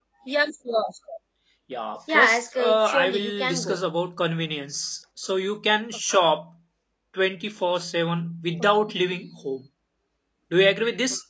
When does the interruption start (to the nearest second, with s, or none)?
2 s